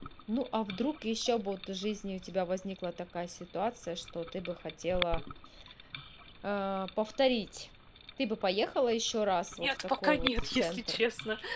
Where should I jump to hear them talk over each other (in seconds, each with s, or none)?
9.6 s